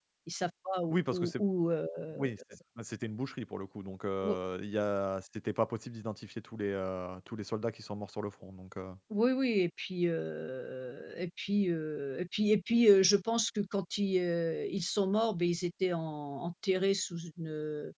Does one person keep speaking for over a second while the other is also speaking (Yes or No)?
No